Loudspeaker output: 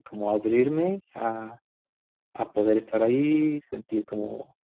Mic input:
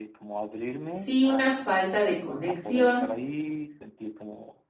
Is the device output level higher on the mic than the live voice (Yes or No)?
No